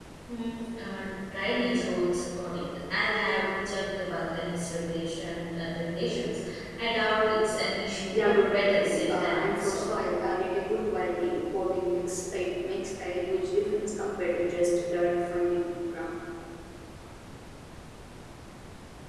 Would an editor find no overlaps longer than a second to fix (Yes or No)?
No